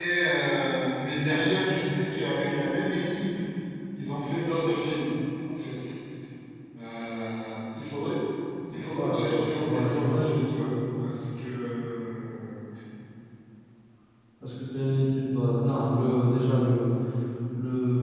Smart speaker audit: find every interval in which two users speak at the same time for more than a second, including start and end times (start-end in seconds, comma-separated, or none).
8.9-10.4